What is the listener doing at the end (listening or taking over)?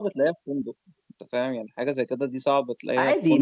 taking over